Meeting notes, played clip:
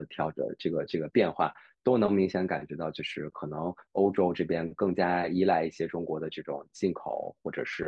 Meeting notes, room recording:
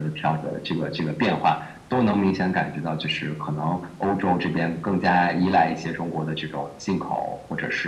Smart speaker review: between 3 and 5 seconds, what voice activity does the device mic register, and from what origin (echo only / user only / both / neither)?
echo only